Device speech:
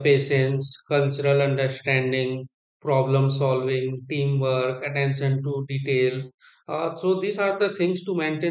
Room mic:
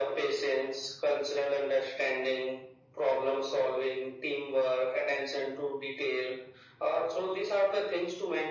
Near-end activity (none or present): none